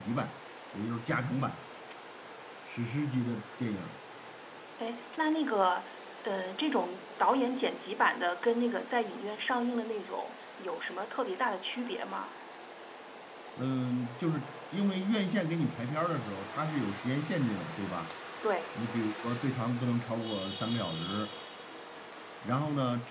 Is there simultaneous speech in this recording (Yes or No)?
No